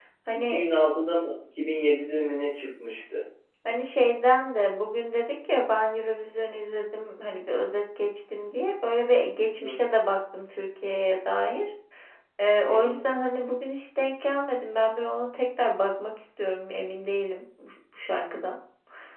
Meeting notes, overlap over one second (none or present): none